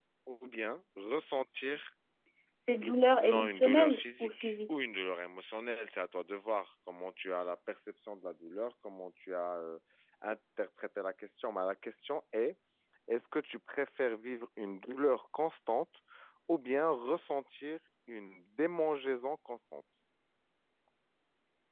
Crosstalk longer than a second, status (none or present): present